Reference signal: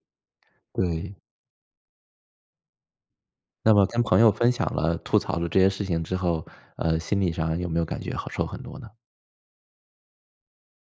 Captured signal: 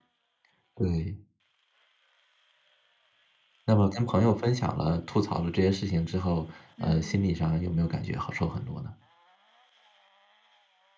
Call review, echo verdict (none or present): present